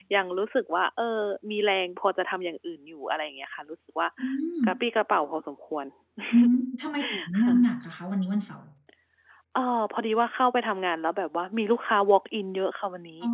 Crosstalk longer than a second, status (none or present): none